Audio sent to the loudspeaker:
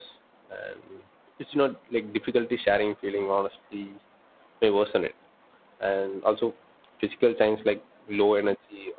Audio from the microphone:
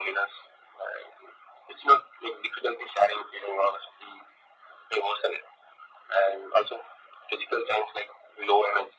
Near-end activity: none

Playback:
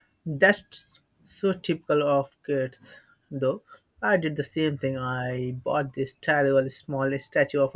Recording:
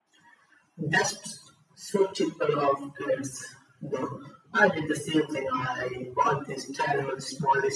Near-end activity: none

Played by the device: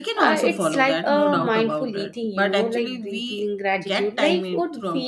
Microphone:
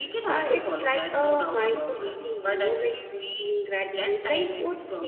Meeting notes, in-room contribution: none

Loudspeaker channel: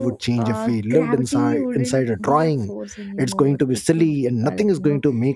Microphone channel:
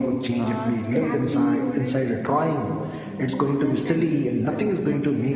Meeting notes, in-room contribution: present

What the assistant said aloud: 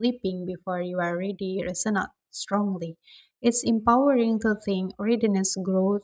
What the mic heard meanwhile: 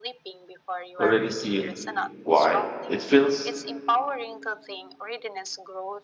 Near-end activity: present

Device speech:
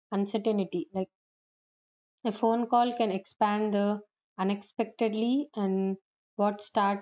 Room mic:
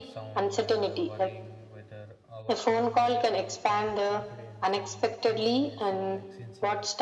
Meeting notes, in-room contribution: present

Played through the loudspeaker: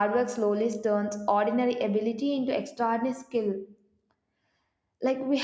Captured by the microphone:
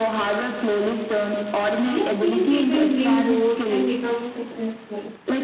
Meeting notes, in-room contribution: present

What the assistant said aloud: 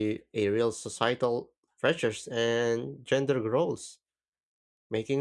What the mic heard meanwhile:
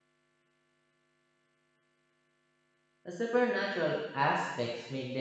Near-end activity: present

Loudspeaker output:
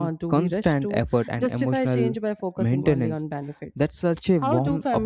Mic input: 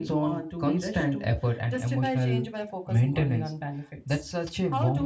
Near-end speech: none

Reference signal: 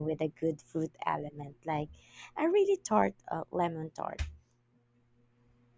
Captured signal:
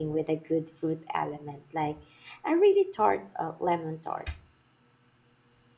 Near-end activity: none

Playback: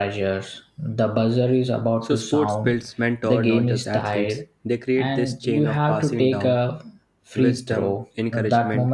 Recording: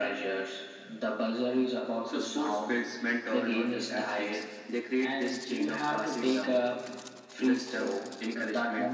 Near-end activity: none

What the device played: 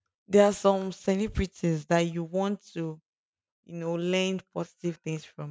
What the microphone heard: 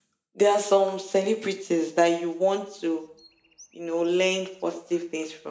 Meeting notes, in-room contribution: none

